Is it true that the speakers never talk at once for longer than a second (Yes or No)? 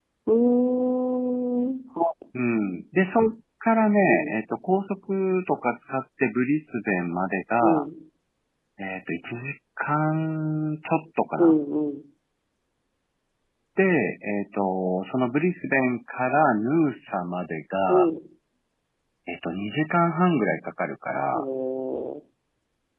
Yes